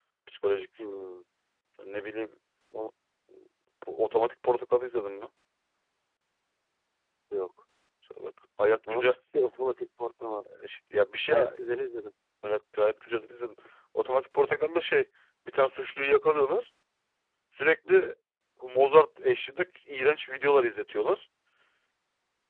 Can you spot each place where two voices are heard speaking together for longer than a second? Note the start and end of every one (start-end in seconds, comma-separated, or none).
none